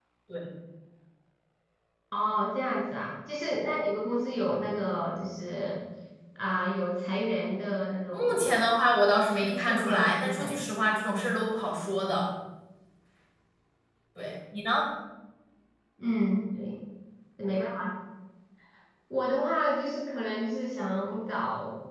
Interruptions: present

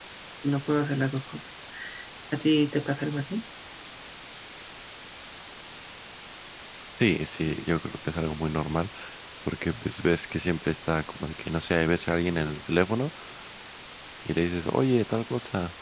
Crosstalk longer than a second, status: none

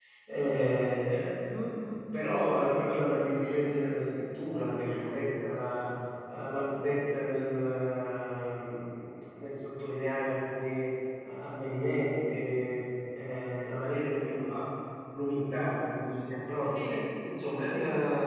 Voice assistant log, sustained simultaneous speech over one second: none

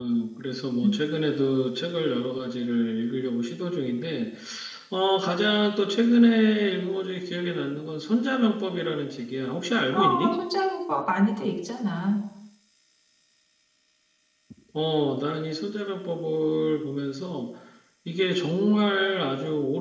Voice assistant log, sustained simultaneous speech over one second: none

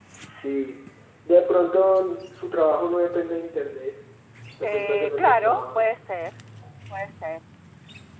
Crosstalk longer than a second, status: present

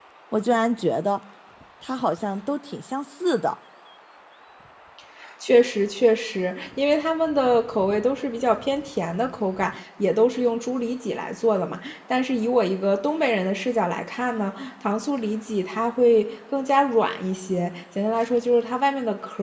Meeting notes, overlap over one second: none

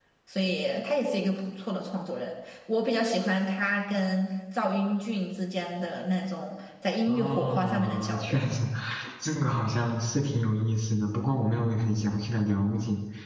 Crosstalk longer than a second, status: present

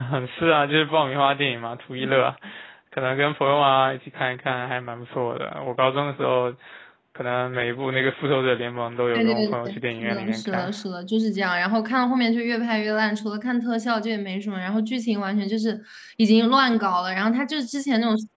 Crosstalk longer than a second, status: present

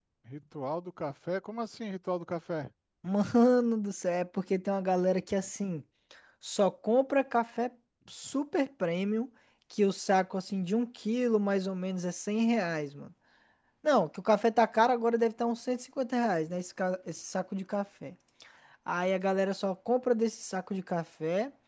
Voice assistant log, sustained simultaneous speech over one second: none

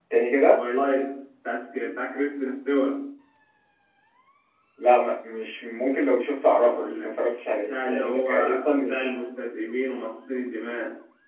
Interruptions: present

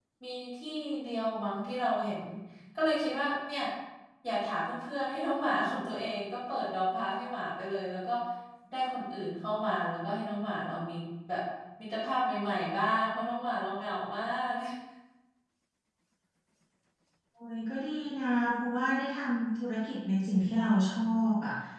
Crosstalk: none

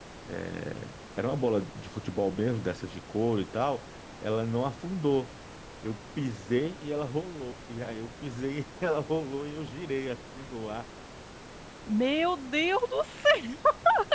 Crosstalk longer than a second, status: none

